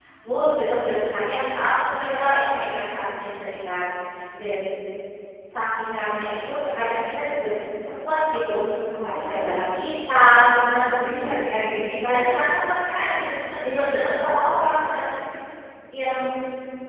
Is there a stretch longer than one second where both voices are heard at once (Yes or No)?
Yes